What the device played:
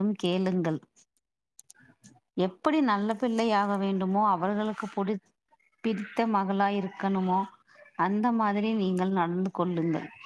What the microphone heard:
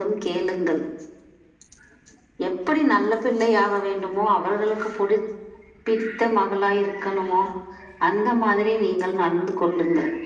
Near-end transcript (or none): none